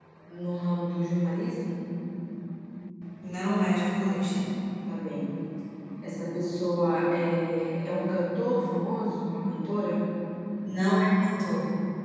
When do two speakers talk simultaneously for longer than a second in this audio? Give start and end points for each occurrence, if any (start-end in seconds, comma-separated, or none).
none